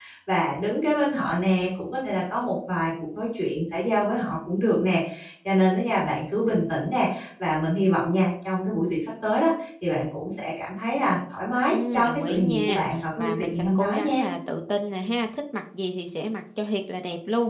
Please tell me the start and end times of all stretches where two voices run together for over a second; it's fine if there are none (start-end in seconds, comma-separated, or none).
11.7-14.2